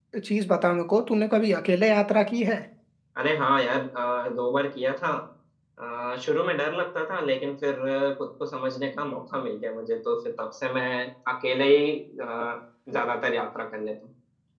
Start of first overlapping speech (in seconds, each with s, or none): none